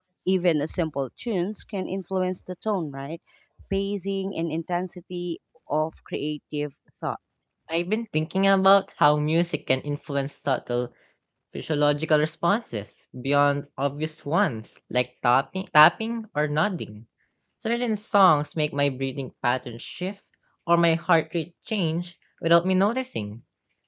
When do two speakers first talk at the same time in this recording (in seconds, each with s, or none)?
none